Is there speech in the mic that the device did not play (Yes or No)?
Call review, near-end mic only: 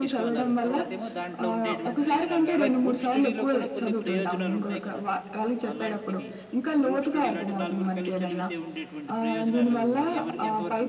Yes